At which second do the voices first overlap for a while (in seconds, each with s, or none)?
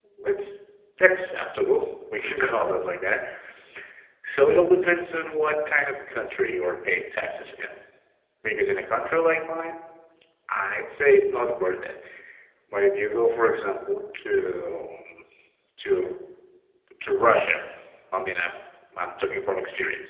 none